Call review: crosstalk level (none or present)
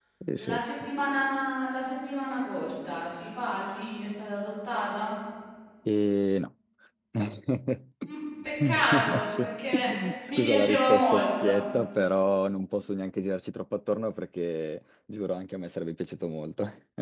present